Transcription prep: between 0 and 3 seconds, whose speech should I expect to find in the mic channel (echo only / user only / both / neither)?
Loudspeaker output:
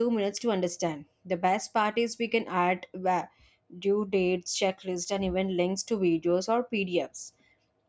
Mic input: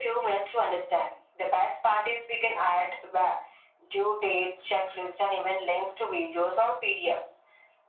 echo only